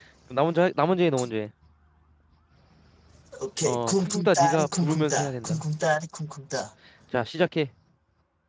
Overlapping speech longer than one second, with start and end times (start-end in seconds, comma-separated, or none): 3.6-5.6